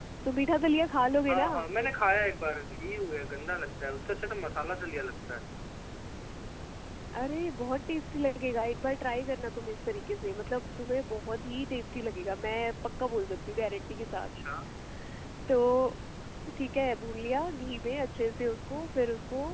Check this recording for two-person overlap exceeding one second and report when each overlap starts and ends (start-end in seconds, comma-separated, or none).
none